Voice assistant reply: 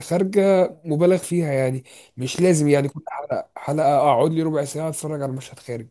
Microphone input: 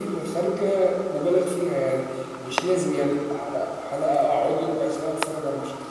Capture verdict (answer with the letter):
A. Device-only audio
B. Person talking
A